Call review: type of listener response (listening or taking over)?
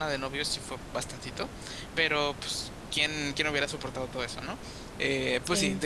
listening